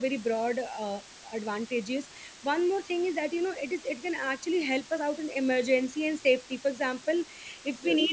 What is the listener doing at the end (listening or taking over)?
listening